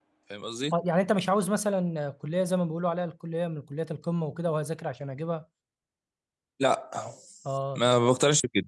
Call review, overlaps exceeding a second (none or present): none